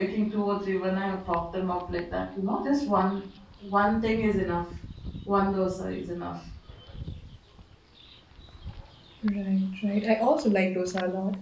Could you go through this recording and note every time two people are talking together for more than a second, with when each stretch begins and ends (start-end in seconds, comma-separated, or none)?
none